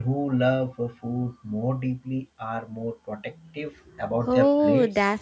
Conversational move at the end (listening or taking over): taking over